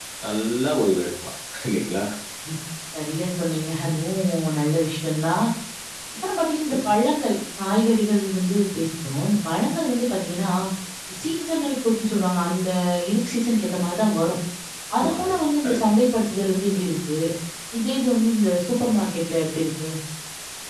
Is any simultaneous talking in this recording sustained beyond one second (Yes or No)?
No